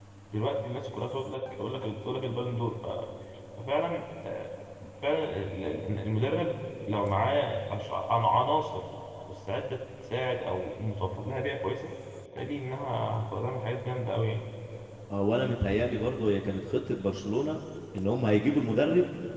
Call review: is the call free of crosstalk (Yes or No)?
Yes